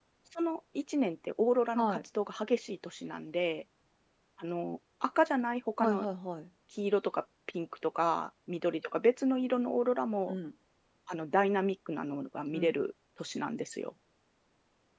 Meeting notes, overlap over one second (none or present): none